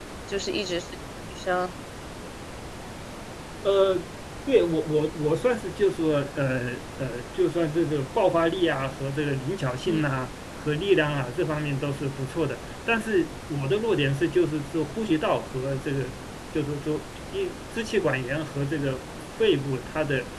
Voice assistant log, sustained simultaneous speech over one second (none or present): none